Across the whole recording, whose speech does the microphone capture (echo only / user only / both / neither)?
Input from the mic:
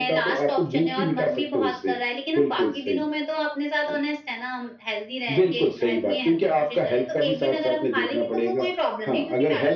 echo only